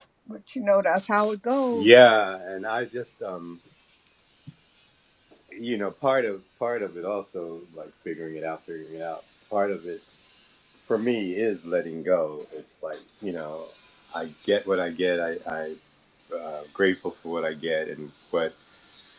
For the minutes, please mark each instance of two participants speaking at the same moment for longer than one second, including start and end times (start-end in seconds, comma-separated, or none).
none